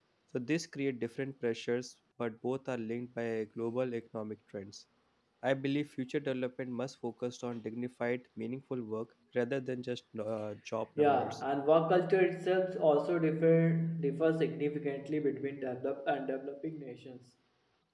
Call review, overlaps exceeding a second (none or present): none